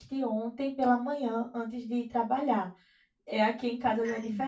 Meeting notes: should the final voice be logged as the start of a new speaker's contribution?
No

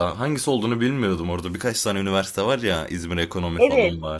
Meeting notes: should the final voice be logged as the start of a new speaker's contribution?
Yes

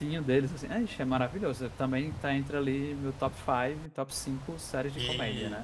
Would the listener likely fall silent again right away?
No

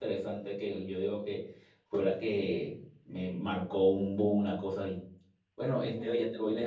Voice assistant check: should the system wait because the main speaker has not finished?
Yes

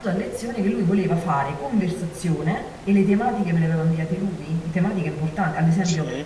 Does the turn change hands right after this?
No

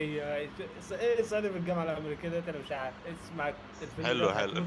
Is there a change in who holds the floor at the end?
Yes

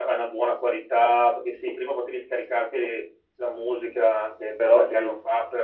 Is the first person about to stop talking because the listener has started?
No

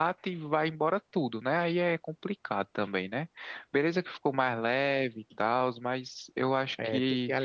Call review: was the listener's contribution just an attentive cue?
No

